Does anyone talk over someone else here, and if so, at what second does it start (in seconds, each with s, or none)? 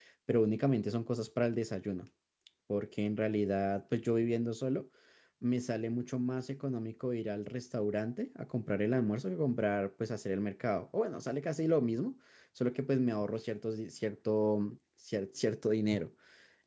none